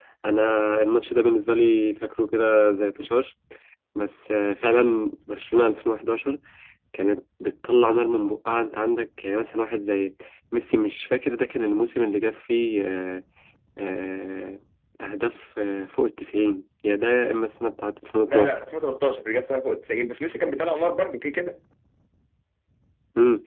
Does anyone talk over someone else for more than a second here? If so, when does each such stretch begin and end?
none

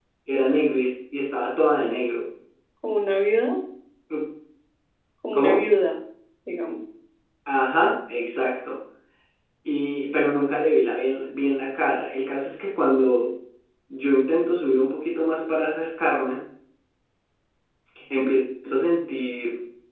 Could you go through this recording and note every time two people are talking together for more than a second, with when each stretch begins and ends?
none

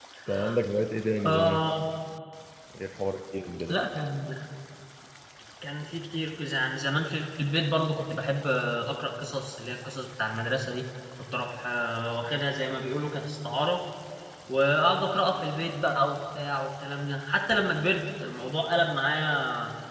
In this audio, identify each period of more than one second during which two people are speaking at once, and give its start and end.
none

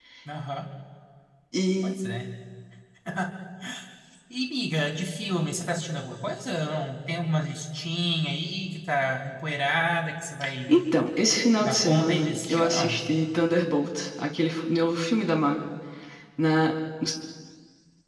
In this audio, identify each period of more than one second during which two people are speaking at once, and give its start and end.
11.6-13.0

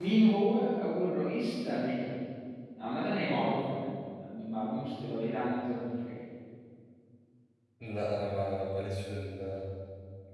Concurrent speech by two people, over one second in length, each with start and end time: none

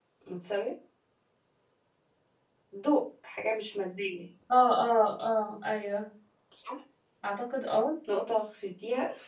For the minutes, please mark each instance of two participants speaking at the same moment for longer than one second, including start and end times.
none

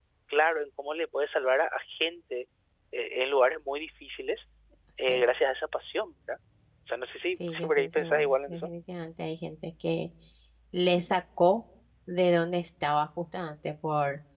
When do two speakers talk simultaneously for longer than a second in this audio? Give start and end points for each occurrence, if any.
7.5-8.7

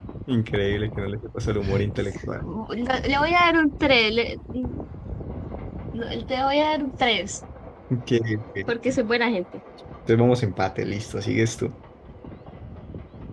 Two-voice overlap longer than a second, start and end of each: none

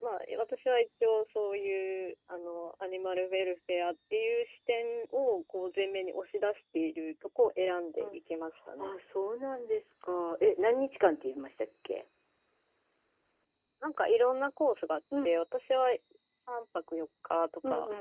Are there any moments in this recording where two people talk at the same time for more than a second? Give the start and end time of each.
none

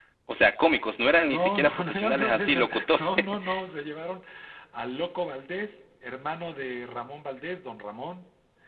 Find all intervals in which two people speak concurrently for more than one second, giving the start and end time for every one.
1.2-3.0

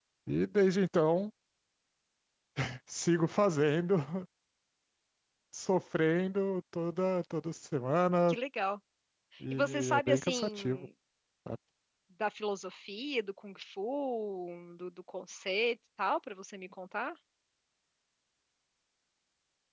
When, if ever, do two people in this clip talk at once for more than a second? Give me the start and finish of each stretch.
9.5-10.9

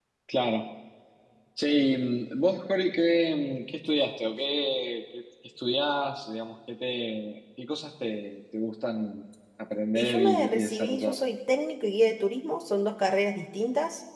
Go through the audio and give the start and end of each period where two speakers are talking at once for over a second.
10.0-11.2

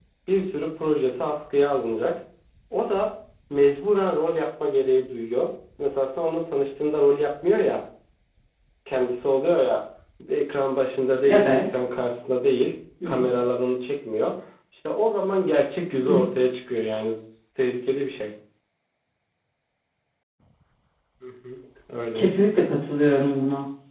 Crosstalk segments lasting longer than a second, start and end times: none

